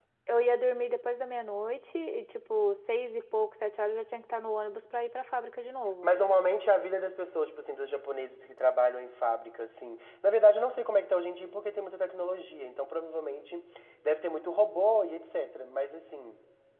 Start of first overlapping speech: none

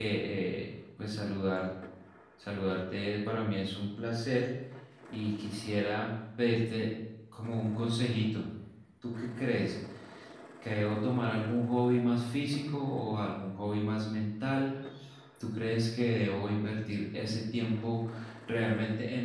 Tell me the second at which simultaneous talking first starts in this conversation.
none

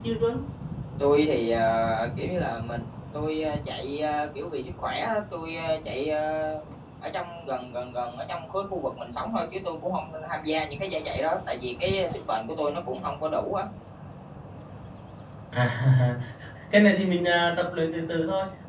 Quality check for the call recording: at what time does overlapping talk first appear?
none

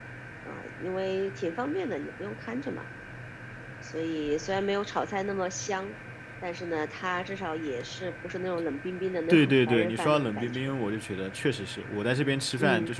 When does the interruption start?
9.3 s

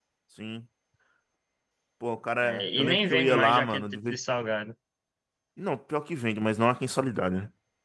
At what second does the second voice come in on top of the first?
2.4 s

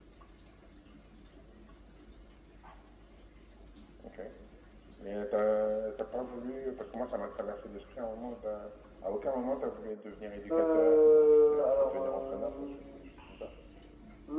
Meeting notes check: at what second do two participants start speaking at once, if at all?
10.5 s

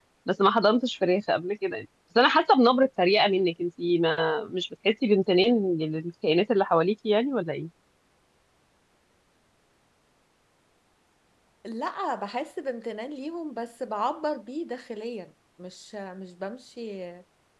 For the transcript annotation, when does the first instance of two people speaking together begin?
none

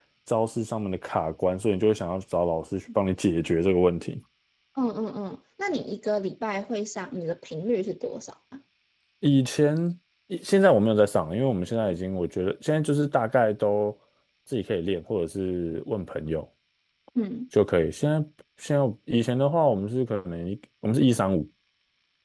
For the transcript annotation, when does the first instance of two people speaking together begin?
none

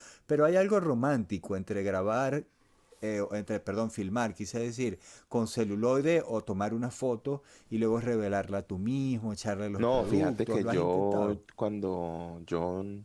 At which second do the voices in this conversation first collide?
9.8 s

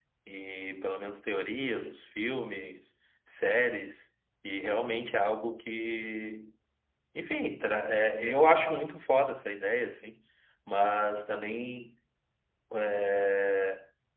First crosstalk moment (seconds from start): none

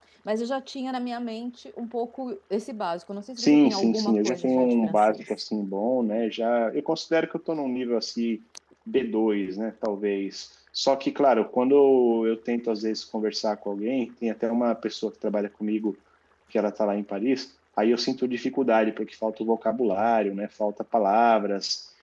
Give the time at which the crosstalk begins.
3.4 s

